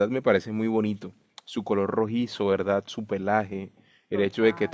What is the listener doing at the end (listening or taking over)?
listening